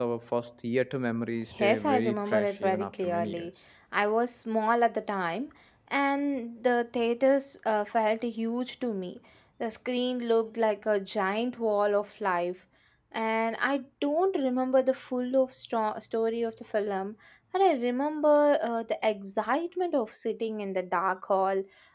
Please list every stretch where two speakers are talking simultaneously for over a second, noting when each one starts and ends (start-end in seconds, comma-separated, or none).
1.6-3.5